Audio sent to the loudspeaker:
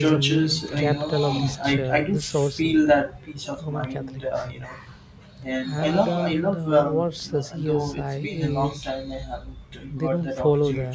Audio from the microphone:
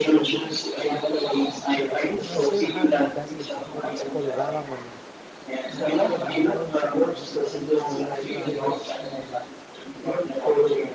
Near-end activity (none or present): present